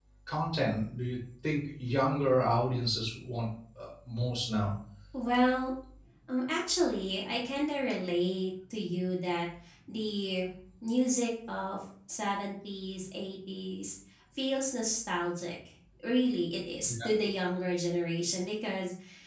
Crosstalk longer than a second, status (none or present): none